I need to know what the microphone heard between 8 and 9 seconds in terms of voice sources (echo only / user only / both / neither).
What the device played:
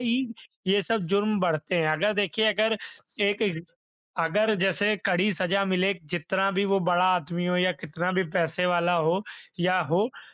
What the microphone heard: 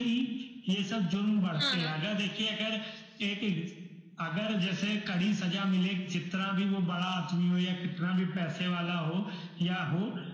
echo only